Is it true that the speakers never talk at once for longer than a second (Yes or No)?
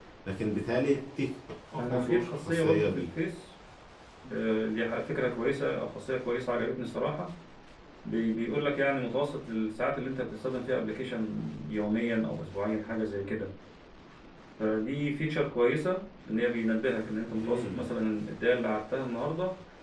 No